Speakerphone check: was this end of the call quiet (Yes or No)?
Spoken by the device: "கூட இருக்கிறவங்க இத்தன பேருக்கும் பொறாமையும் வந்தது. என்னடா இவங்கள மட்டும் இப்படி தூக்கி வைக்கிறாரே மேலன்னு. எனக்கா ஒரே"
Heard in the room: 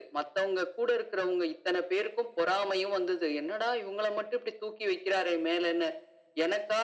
Yes